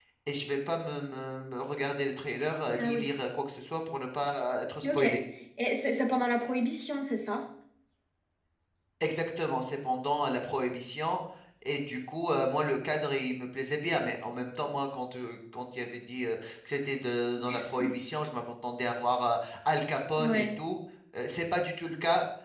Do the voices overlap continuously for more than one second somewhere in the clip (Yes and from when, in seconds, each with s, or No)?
No